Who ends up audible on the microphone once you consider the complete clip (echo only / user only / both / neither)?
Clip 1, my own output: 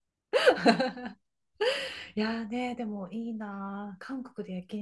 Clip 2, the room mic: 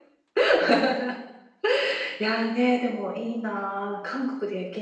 echo only